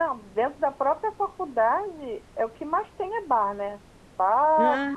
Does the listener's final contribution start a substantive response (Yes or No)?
No